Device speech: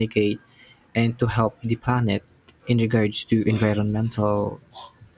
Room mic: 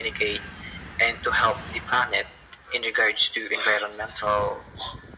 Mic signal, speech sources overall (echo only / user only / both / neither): echo only